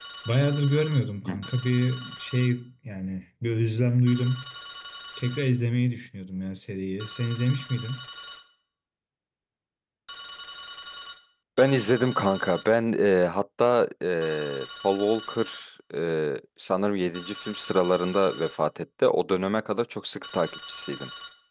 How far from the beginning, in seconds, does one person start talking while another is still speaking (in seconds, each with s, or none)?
none